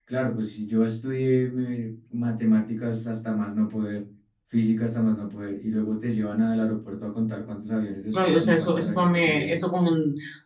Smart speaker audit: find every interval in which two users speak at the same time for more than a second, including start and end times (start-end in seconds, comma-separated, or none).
8.1-9.6